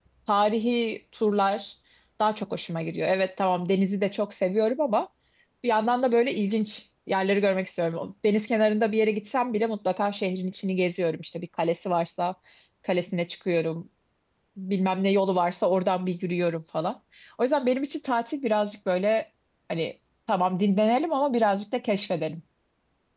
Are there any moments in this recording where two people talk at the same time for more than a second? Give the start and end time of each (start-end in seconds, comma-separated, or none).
none